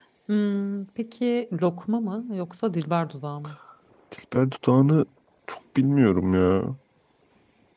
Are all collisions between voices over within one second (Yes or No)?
Yes